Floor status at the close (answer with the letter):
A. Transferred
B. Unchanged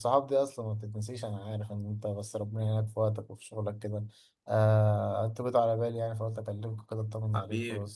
A